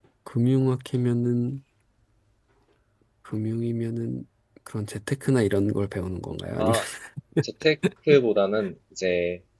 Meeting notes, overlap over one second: none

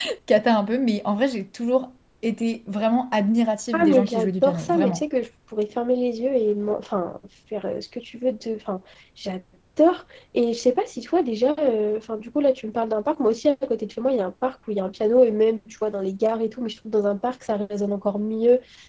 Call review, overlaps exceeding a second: present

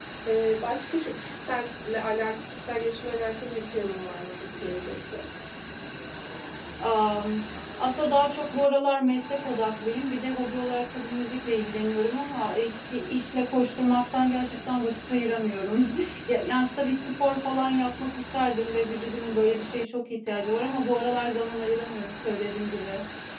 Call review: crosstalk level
none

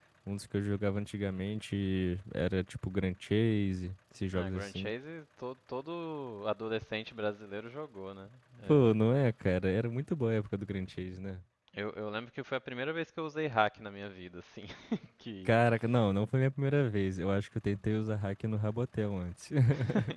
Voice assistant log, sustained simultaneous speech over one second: none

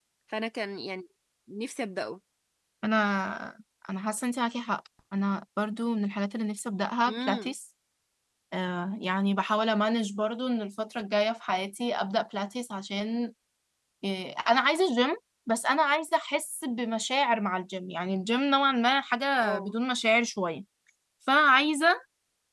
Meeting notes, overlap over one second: none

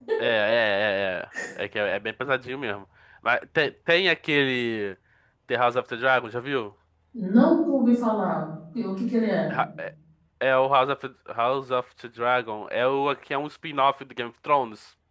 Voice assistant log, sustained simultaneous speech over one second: none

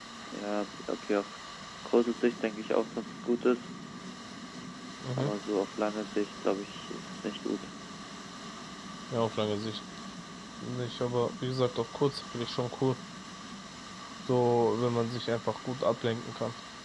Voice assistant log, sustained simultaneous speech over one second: none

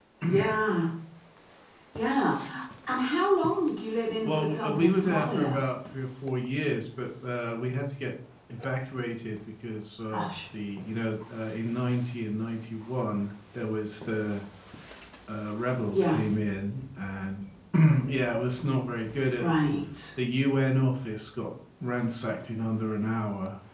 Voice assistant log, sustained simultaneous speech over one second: present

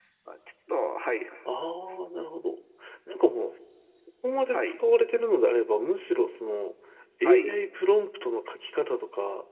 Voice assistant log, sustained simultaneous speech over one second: none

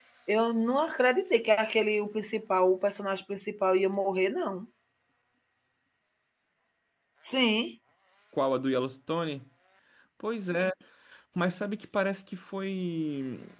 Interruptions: none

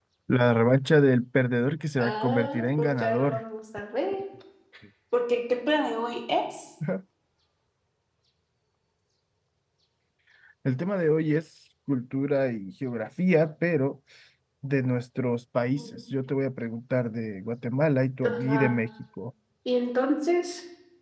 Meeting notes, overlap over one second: present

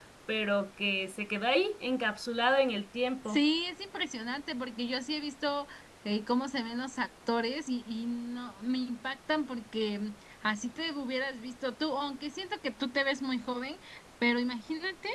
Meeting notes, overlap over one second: none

